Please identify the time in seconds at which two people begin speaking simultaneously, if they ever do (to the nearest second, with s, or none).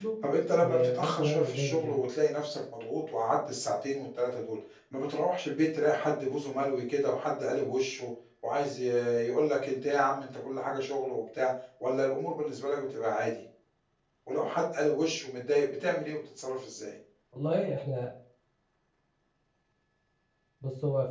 1 s